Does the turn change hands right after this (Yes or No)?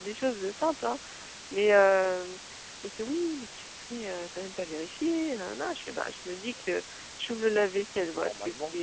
No